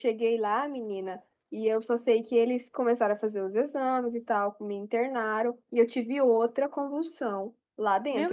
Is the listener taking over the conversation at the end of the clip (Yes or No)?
No